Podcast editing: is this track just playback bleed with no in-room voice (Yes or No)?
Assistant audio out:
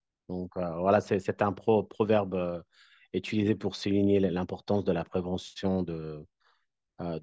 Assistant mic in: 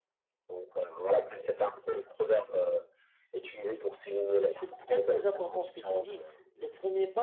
No